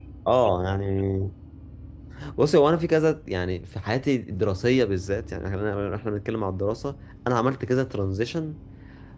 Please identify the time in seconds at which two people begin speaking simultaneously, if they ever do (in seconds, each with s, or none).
none